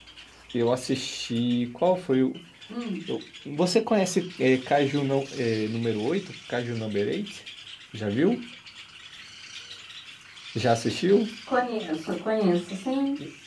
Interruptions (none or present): none